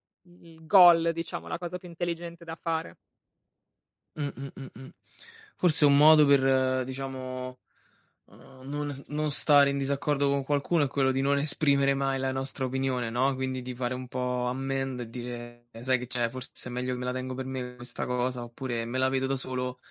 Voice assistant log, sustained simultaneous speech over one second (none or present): none